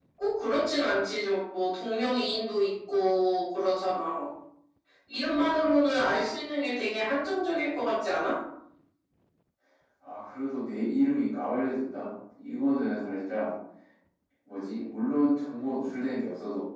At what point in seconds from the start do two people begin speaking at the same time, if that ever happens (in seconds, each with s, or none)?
none